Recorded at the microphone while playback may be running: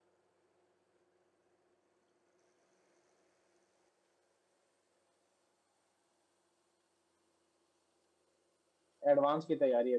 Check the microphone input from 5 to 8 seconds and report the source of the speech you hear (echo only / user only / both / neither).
neither